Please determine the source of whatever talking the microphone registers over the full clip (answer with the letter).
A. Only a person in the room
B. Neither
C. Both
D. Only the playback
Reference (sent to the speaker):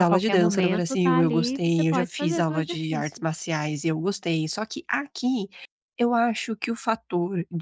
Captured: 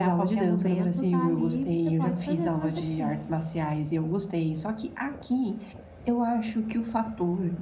D